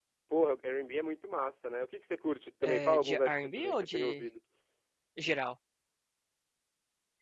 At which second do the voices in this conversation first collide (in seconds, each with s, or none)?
2.6 s